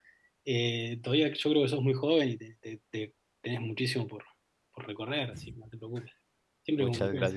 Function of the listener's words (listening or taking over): taking over